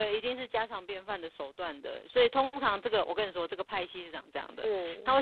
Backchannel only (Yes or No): Yes